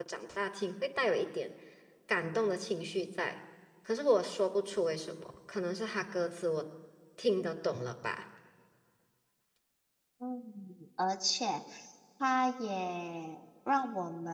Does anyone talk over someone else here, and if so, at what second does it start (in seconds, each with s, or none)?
none